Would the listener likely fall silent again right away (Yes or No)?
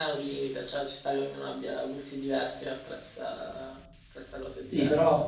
No